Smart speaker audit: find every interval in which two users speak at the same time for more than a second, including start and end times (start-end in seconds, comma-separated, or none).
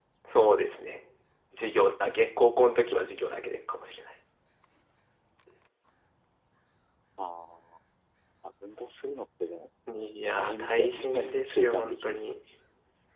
10.3-12.2